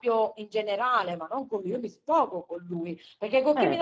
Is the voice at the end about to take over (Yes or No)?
No